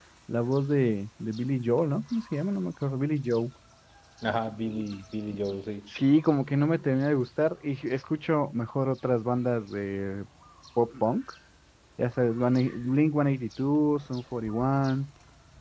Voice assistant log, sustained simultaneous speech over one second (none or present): none